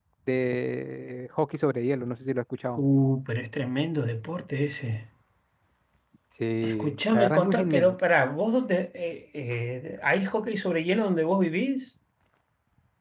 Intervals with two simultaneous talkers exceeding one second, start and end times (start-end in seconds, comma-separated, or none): 6.6-8.0